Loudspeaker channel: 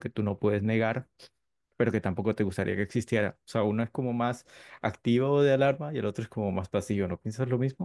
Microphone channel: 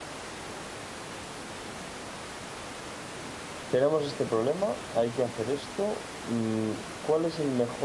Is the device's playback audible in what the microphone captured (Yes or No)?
No